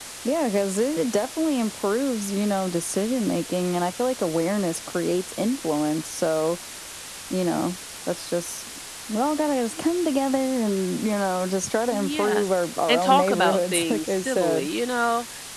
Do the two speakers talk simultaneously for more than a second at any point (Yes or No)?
Yes